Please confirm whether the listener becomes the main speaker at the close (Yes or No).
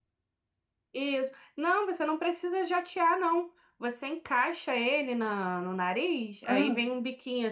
No